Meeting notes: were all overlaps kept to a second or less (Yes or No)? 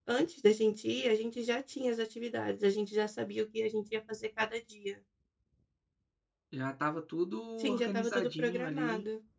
No